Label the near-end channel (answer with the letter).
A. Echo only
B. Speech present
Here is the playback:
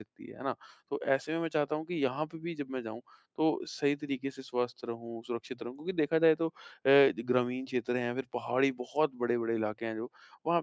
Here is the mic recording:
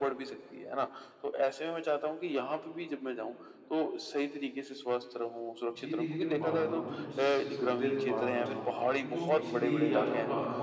B